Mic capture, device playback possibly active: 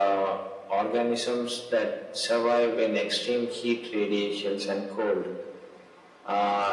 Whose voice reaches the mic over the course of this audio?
echo only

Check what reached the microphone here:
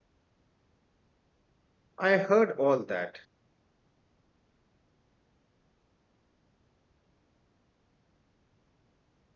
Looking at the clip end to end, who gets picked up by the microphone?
user only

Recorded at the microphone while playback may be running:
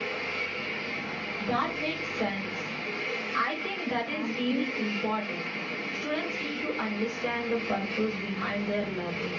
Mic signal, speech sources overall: both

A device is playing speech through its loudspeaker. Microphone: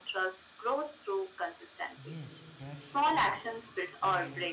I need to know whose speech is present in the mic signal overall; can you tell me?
both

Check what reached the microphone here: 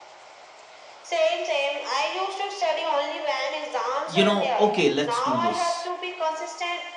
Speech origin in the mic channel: both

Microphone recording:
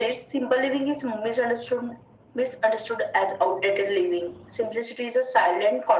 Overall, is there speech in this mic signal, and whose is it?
echo only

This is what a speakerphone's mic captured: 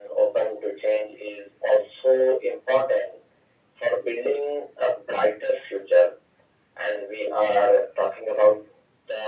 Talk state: echo only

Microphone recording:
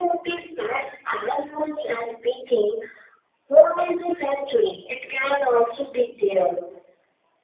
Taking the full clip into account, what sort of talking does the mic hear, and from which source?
echo only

